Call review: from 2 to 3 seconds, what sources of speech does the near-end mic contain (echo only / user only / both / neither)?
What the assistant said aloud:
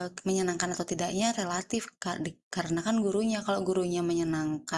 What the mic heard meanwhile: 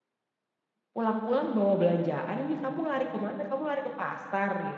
user only